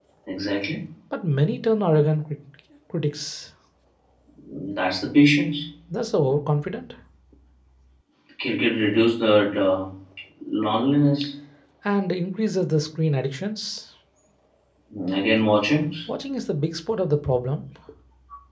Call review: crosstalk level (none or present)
none